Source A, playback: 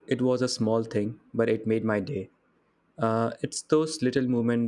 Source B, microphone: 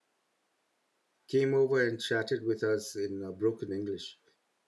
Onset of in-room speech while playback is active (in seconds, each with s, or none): 1.3 s